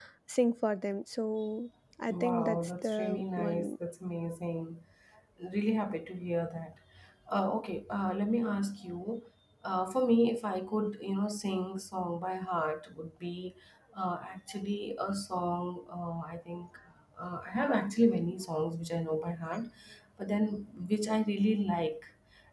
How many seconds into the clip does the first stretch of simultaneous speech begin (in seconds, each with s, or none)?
2.1 s